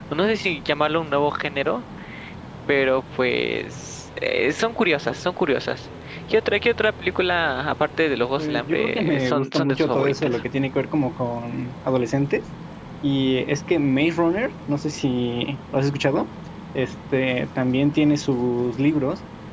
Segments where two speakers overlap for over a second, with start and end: 8.4-10.4

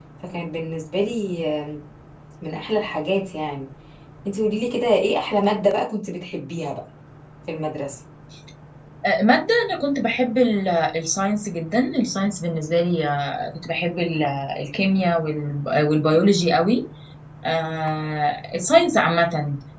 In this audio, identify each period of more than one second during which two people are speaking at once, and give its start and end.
none

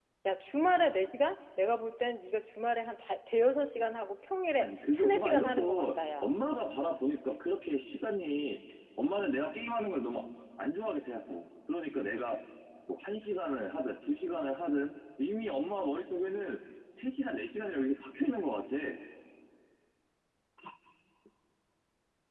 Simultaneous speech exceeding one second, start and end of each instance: 4.6-6.3

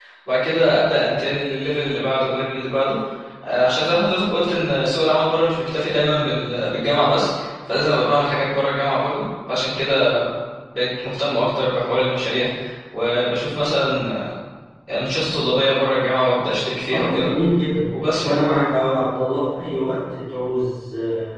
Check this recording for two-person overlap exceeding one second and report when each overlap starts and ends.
none

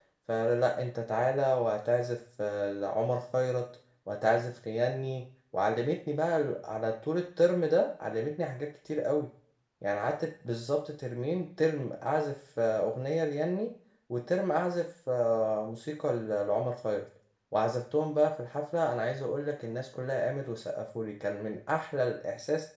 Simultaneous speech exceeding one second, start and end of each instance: none

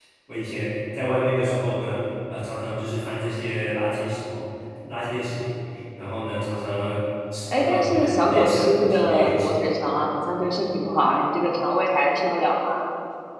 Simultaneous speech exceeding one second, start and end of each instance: 7.5-9.7

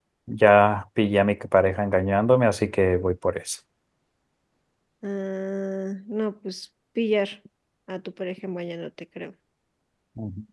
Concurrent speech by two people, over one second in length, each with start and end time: none

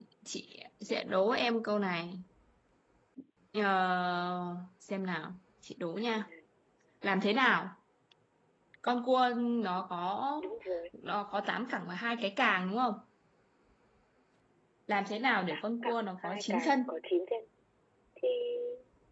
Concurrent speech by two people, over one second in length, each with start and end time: 15.5-16.8

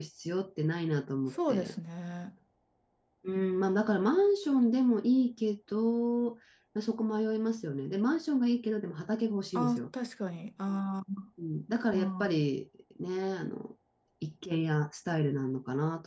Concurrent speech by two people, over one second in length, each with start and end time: none

